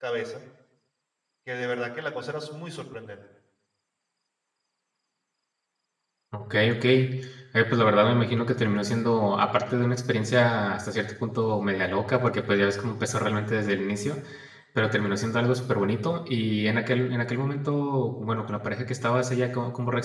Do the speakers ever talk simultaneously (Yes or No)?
No